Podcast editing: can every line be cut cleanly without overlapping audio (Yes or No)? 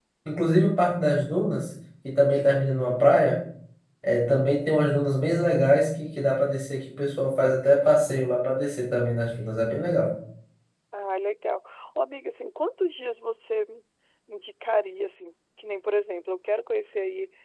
Yes